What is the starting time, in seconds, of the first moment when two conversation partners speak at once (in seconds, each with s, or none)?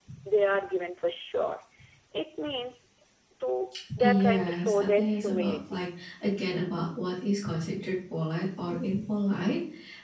4.0 s